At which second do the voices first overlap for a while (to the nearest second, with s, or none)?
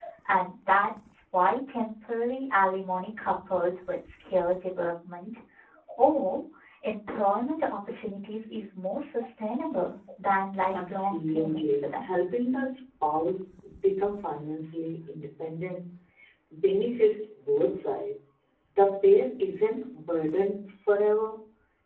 11 s